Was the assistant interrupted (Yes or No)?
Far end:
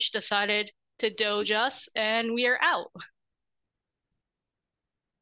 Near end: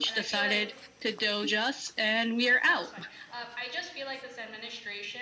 Yes